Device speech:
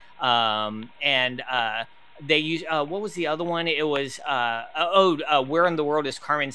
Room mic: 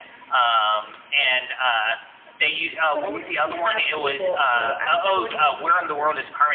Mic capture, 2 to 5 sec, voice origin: both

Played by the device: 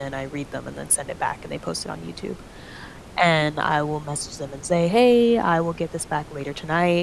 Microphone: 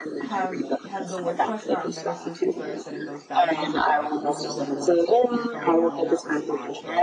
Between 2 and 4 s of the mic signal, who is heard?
both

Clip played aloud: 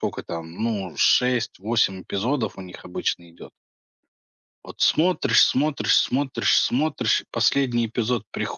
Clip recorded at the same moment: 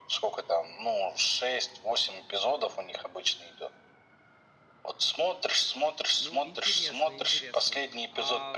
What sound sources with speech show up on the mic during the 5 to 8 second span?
both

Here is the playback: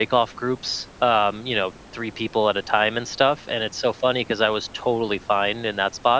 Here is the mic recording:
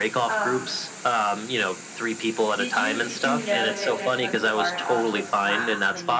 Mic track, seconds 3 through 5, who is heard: both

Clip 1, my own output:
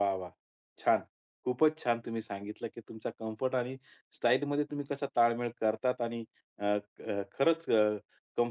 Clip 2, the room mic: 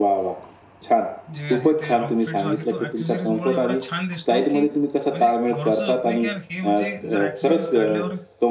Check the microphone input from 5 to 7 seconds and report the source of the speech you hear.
both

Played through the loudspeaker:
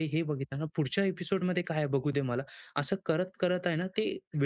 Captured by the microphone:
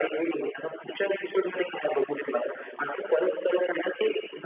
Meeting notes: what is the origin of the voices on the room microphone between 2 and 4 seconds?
echo only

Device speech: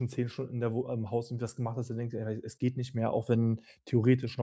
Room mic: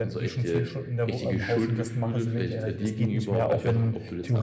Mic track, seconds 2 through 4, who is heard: both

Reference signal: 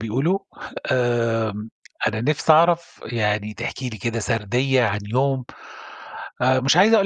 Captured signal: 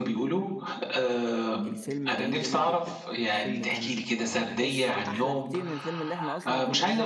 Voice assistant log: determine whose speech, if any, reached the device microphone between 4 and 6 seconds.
both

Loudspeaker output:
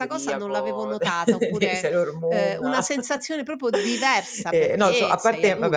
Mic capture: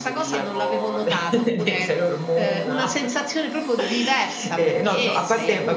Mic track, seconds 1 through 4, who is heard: echo only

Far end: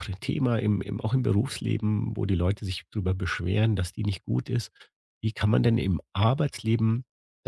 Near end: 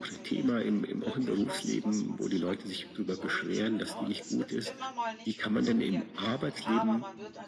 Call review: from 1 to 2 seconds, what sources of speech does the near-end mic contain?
both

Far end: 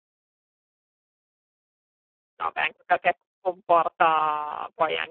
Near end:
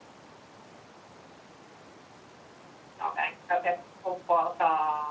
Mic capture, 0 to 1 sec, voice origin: neither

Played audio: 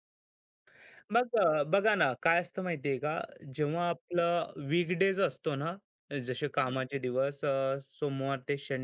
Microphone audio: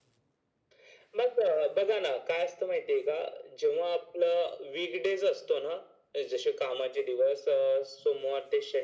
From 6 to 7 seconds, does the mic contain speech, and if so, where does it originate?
echo only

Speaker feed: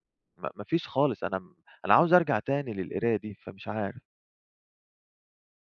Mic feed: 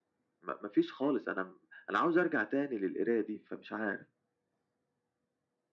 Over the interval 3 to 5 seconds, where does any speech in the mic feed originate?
echo only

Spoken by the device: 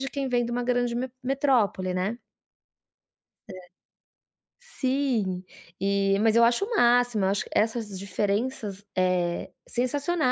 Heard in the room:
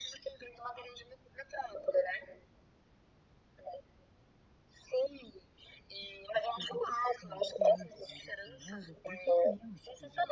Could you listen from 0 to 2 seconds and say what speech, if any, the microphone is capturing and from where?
echo only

